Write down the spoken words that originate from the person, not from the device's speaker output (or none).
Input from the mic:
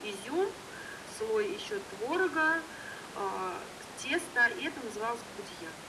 none